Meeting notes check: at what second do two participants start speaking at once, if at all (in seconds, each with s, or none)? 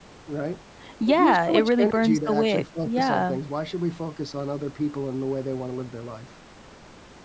1.1 s